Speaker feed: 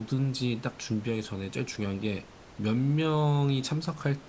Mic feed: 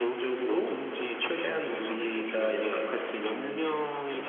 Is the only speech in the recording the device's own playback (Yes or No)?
No